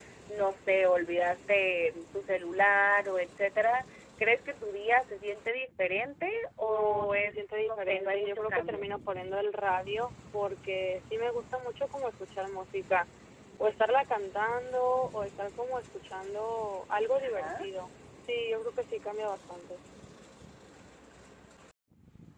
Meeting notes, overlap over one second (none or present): present